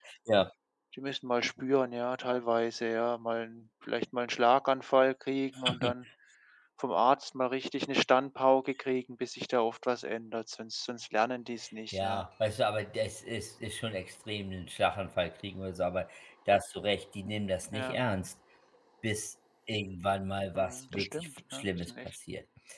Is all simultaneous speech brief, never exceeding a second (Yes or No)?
No